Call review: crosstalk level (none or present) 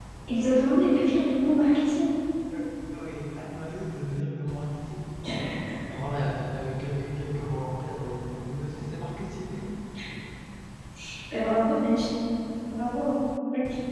none